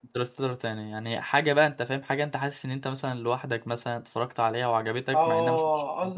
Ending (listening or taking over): taking over